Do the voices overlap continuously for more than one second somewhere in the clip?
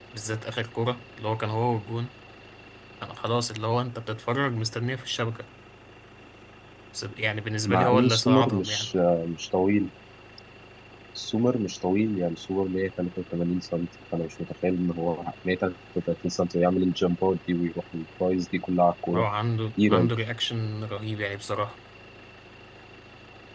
Yes, from 7.7 s

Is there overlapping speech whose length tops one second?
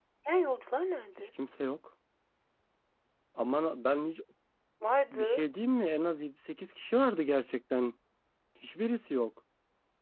No

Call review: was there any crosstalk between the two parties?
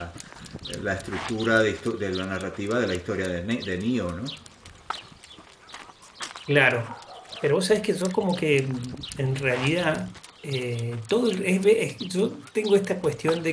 No

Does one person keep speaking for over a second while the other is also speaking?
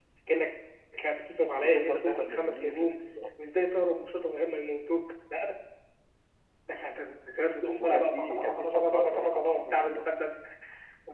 Yes, from 1.6 s

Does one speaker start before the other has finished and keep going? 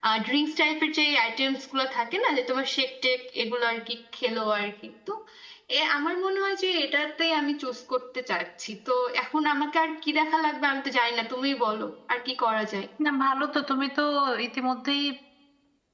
No

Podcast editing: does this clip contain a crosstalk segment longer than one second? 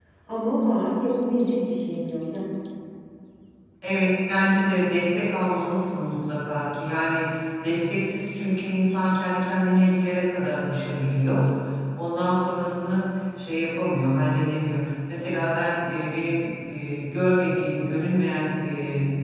No

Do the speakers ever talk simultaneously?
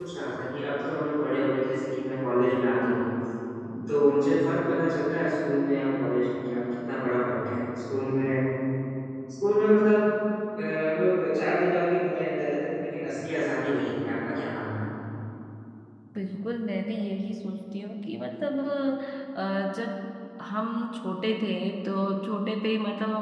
No

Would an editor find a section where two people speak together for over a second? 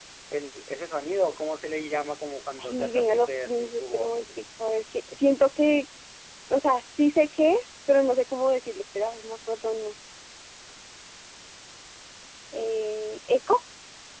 Yes, from 2.6 s

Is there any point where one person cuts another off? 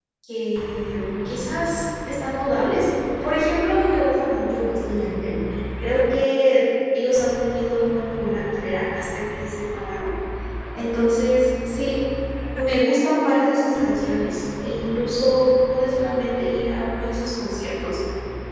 No

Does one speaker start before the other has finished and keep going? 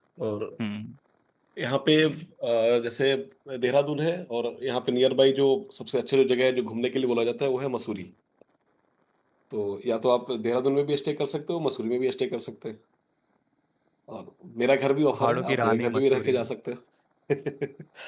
Yes, from 15.1 s

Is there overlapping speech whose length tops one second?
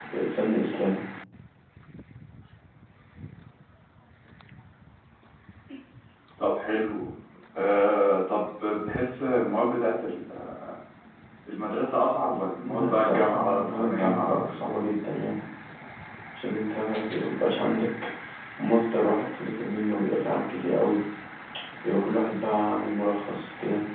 Yes, from 12.6 s

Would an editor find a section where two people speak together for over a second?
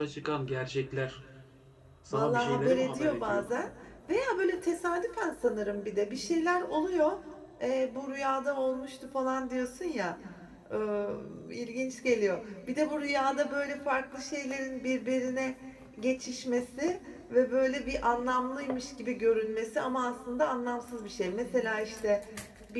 Yes, from 2.1 s

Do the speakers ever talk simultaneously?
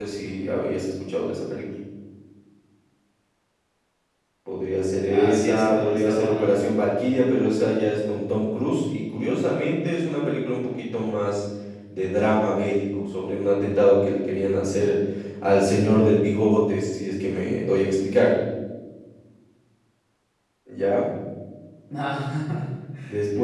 Yes, from 5.1 s

